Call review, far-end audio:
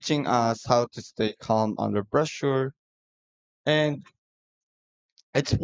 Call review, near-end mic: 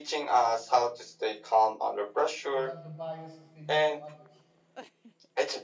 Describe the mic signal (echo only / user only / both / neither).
both